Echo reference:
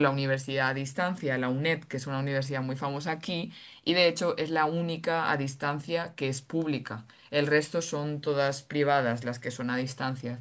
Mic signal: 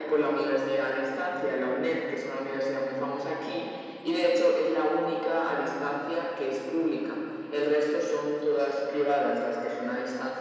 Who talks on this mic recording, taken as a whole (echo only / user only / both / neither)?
echo only